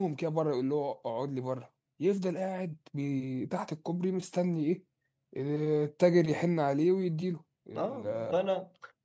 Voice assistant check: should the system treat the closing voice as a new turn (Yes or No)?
Yes